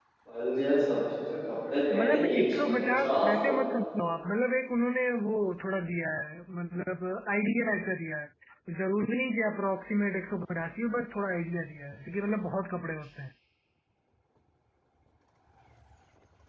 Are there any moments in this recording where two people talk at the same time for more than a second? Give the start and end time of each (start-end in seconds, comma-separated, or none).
1.9-3.3